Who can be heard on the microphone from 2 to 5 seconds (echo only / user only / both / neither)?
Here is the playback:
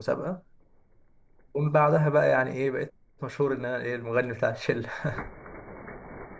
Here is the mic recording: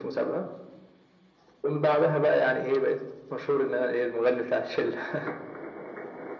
echo only